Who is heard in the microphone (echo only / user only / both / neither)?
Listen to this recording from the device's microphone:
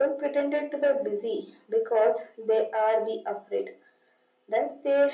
echo only